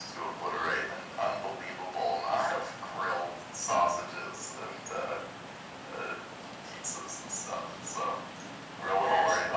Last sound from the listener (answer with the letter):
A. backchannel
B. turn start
A